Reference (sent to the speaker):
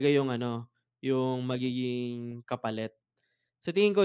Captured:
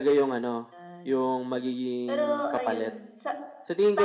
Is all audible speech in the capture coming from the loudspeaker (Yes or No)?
No